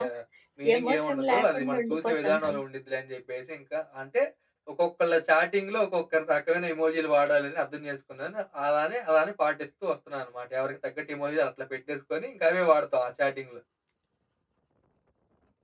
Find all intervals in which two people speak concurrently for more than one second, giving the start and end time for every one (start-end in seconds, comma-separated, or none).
0.8-2.6